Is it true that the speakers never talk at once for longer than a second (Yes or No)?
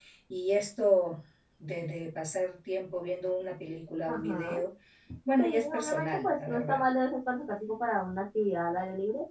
No